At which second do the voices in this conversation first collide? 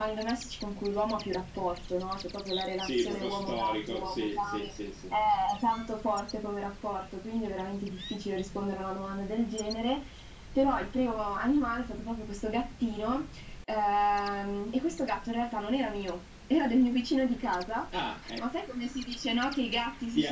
2.8 s

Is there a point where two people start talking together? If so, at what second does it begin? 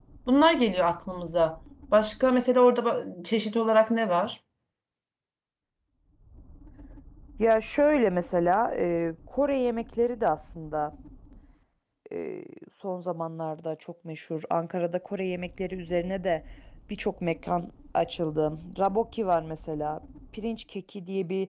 none

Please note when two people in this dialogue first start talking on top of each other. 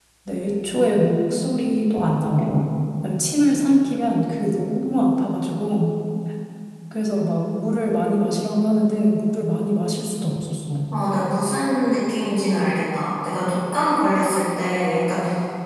none

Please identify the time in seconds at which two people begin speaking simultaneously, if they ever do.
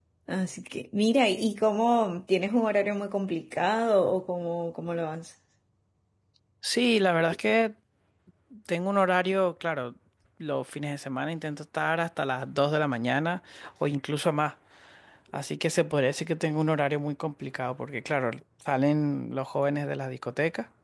none

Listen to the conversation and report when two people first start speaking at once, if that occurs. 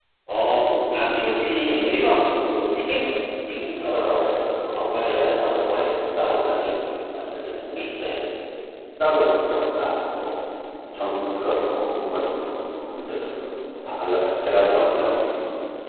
none

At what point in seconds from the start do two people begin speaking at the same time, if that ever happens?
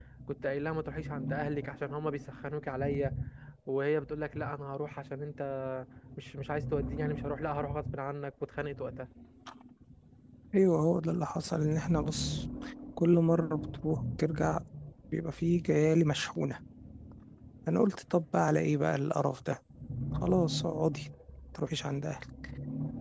none

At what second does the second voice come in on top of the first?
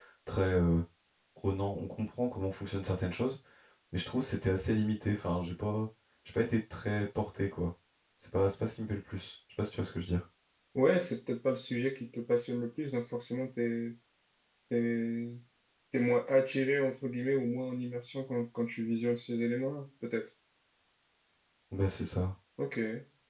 none

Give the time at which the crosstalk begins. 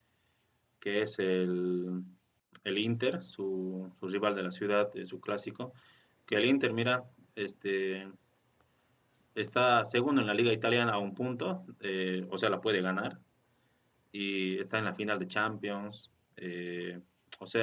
none

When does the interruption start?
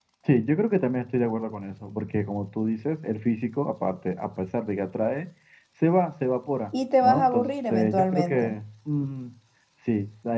7.0 s

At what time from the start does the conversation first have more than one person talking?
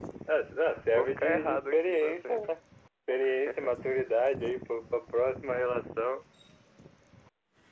0.9 s

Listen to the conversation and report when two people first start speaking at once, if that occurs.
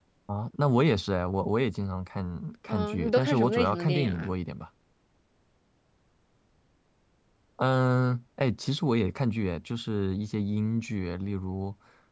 2.7 s

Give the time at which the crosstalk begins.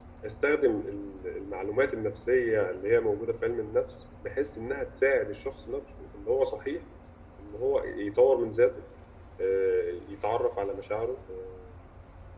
none

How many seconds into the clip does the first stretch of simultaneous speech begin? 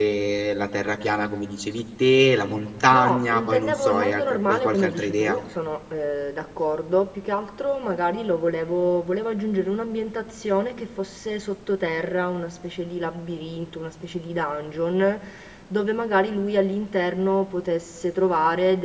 2.9 s

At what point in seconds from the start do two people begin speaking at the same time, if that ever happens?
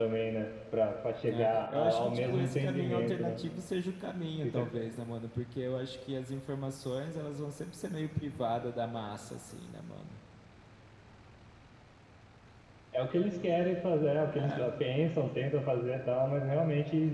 1.2 s

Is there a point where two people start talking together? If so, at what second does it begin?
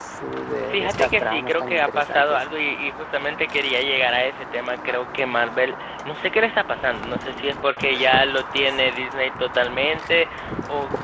0.7 s

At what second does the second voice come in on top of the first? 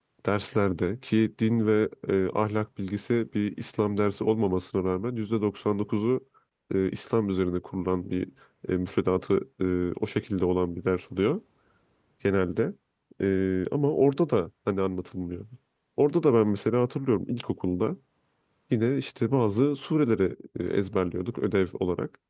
none

